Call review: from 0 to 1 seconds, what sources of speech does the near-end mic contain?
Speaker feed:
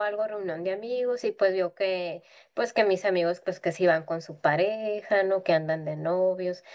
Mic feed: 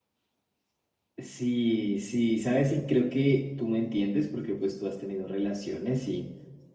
neither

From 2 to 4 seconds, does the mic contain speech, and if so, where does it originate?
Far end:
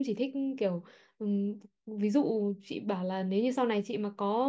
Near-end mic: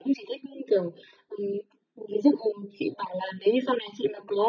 echo only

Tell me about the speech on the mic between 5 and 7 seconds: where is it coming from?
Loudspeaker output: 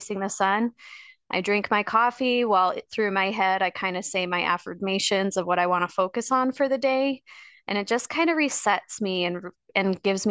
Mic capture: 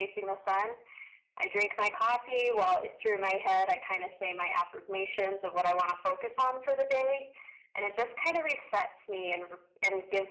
echo only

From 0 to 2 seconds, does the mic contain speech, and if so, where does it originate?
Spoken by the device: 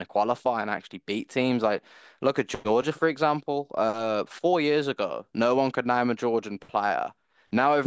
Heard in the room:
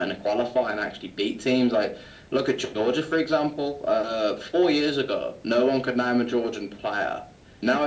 echo only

